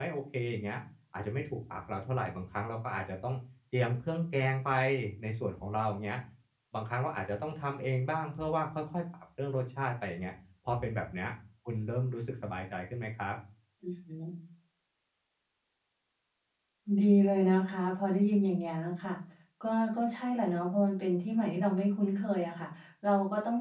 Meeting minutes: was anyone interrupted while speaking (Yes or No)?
No